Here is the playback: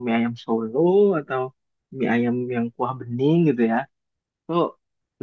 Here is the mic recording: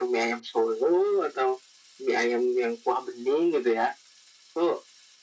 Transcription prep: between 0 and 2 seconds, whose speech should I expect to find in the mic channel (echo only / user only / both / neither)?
echo only